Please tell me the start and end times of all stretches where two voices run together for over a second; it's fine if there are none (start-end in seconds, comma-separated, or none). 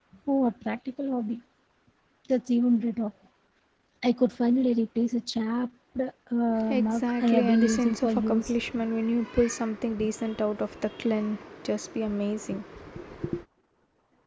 6.7-8.5